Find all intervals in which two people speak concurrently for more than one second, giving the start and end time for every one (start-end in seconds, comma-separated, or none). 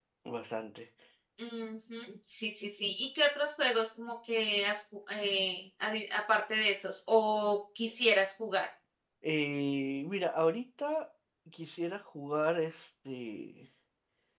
none